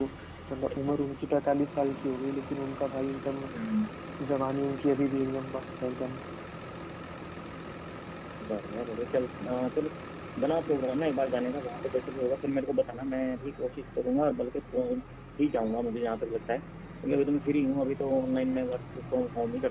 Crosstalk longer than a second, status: none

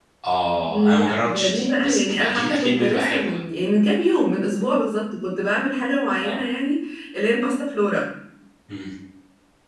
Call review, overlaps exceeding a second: present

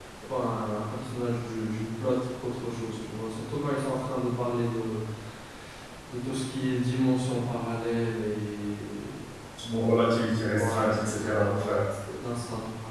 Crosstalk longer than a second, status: present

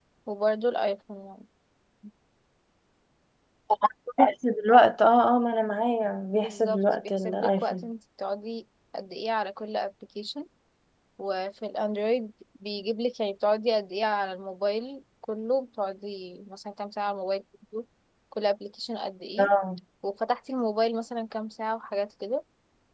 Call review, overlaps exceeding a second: present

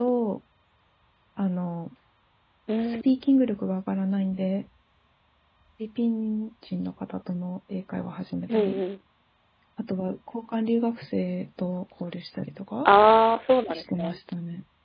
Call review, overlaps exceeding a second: none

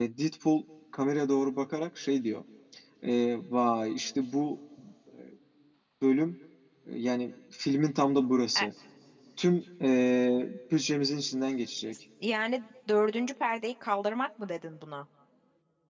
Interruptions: none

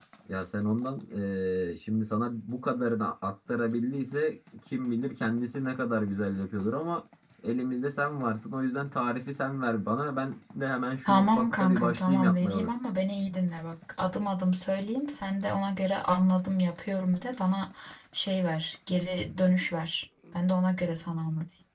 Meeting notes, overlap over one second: present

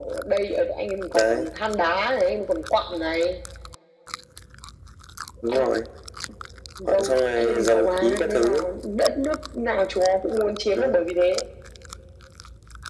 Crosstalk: present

